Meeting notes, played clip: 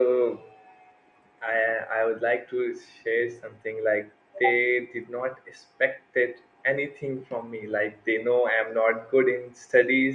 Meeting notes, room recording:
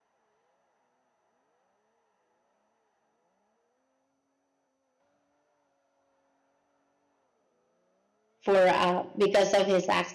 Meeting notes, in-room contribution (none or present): present